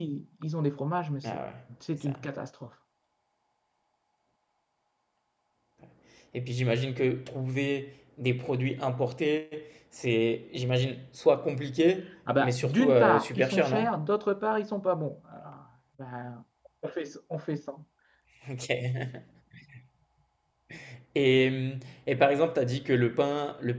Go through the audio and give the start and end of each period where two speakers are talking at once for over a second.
12.4-13.8

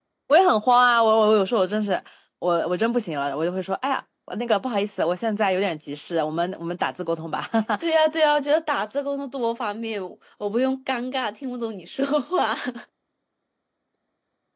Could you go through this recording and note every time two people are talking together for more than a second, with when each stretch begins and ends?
none

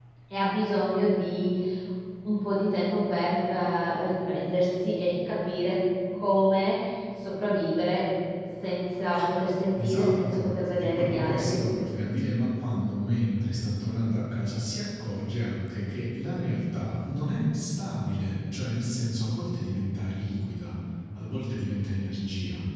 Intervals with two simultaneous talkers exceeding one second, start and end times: 9.8-11.6

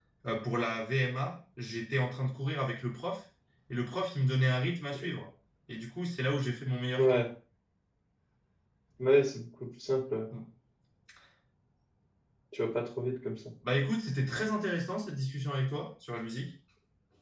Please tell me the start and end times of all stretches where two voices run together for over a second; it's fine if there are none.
none

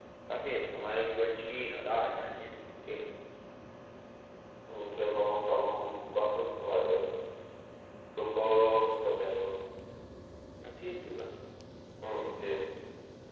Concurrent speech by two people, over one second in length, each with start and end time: none

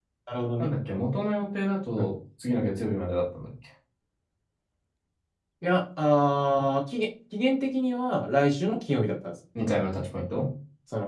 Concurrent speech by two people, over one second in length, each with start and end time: none

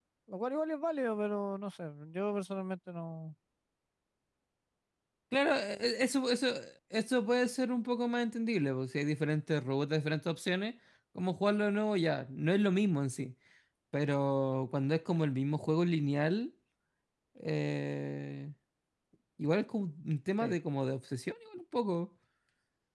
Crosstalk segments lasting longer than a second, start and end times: none

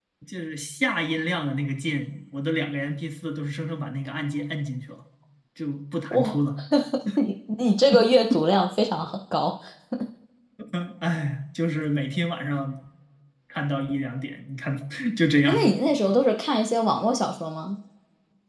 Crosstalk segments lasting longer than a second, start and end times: none

